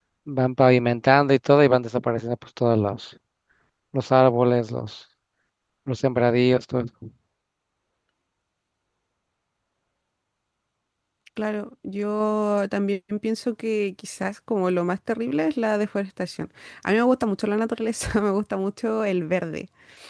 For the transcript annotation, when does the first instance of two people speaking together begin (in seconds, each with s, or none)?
none